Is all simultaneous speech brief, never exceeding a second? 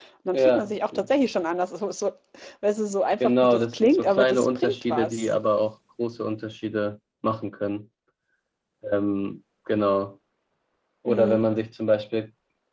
No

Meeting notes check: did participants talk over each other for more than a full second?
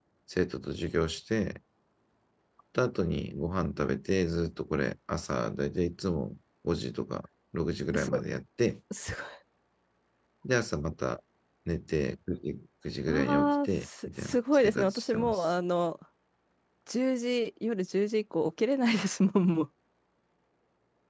Yes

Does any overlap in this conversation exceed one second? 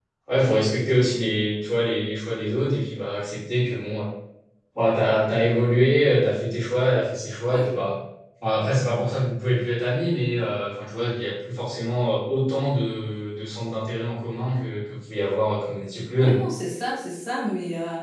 No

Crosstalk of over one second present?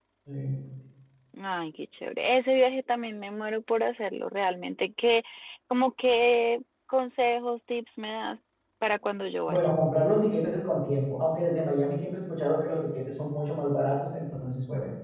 No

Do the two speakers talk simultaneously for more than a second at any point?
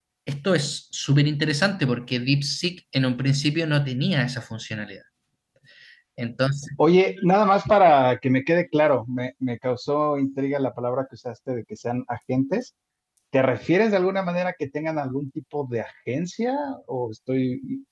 No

